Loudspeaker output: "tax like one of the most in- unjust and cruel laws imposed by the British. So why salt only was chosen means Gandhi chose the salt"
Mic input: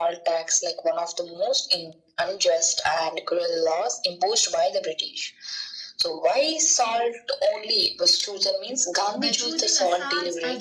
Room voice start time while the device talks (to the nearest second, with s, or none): 9 s